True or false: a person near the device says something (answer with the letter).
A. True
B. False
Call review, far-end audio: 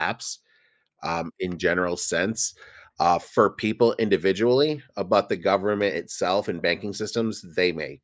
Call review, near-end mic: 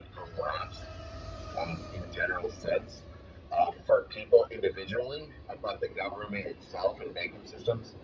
B